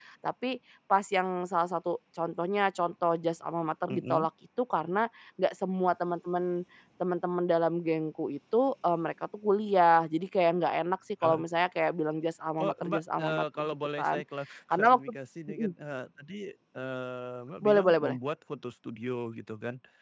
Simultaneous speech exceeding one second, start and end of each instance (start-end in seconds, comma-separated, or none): 12.6-14.2